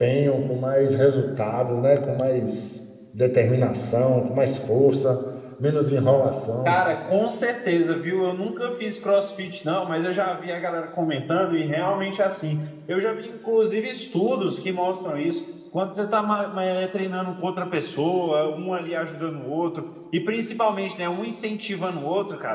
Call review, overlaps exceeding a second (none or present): none